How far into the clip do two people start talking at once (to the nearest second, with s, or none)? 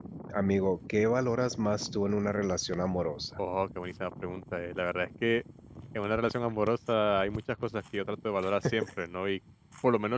none